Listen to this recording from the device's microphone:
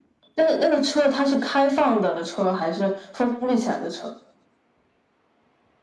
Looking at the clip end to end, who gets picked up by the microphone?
echo only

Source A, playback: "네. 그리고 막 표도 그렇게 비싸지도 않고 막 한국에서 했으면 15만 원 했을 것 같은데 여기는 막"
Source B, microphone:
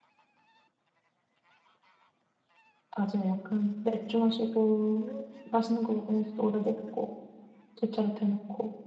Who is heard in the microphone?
user only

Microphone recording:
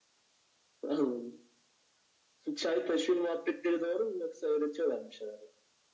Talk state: echo only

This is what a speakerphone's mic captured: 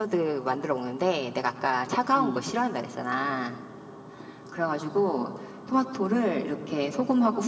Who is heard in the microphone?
both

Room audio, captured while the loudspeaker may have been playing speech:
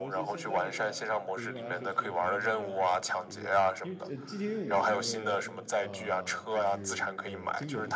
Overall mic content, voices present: both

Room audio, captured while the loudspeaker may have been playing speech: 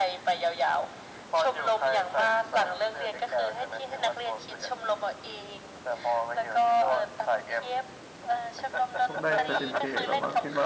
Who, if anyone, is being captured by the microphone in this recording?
both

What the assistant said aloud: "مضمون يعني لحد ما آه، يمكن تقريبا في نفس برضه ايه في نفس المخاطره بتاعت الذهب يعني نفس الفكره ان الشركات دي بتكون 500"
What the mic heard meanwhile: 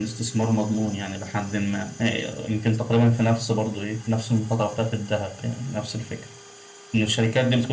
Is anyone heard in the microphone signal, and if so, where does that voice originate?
echo only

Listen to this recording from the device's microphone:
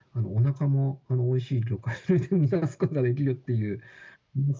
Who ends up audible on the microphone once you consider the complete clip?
echo only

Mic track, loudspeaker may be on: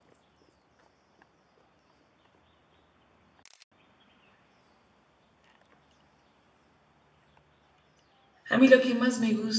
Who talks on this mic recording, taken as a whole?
user only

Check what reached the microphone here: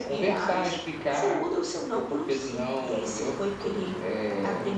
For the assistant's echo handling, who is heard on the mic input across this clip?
echo only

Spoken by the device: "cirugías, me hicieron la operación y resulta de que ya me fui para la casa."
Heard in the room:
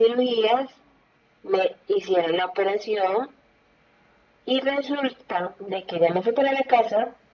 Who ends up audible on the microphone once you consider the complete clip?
echo only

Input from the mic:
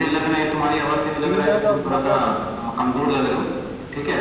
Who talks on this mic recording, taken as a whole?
both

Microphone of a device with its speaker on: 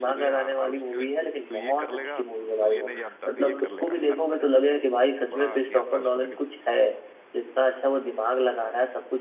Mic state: both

